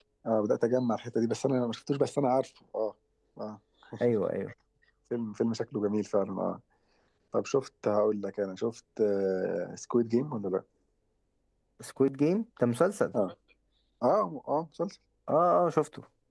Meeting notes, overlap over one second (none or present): none